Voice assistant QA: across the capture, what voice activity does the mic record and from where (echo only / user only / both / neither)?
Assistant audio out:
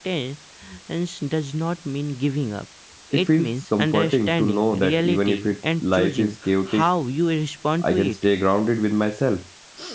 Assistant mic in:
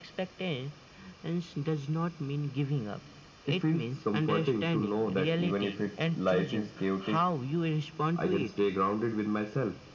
echo only